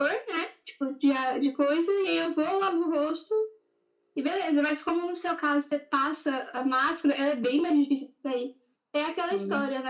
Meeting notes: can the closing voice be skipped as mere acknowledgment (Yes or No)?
Yes